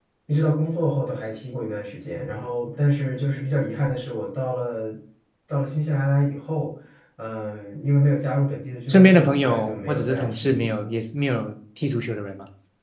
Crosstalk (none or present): present